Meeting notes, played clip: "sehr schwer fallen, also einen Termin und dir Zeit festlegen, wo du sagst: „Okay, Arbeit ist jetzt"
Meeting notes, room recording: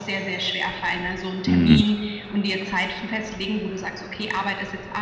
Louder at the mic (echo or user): user